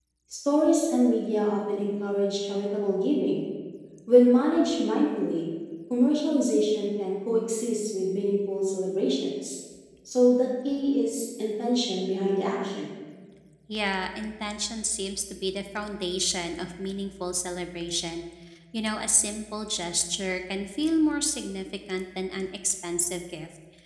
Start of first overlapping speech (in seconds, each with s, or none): none